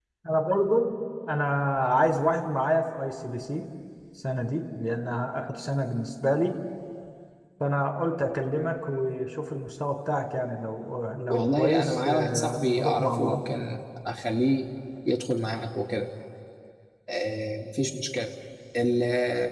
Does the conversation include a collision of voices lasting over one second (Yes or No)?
Yes